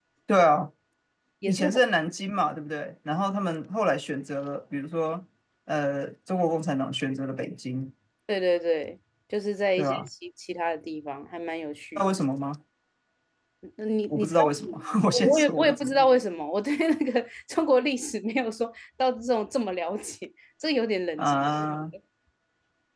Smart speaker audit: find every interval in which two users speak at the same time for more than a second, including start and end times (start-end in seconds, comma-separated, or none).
14.1-16.0